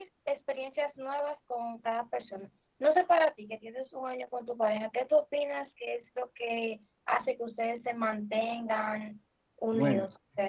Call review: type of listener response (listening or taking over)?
taking over